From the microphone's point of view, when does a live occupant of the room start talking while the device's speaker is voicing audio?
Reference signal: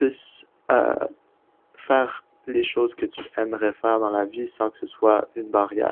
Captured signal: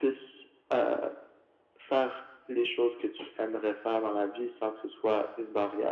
none

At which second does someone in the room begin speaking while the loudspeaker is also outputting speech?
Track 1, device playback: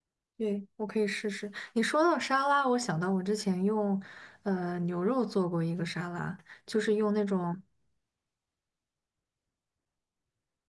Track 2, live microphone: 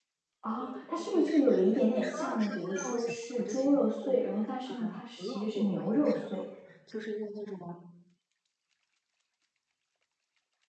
0 s

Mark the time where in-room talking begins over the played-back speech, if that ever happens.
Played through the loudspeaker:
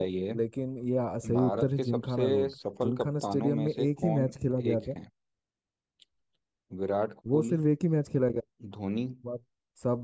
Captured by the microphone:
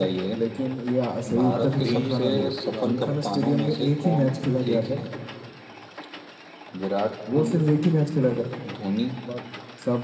2 s

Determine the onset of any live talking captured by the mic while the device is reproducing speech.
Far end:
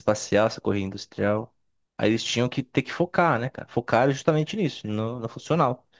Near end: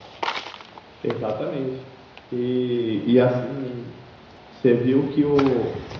1 s

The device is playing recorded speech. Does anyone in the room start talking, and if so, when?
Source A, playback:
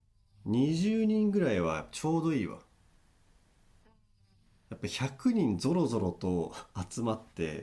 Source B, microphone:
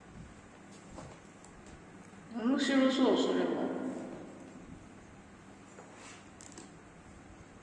2 s

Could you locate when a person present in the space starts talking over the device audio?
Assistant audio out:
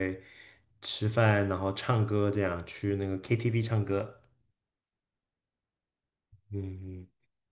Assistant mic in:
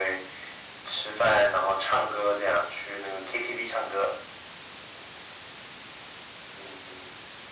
none

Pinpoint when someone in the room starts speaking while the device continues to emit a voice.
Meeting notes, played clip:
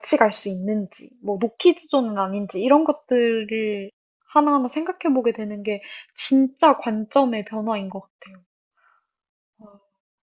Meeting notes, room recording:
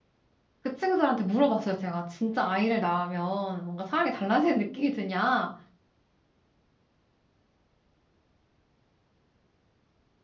1 s

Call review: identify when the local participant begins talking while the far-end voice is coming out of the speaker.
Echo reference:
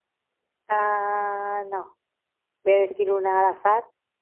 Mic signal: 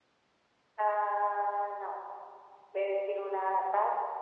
none

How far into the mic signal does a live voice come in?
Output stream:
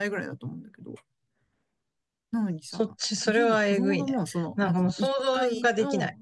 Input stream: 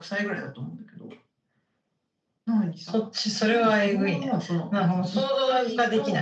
none

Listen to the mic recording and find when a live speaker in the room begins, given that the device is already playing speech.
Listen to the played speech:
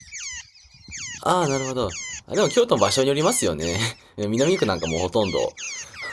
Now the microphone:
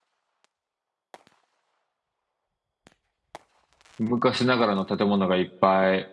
4 s

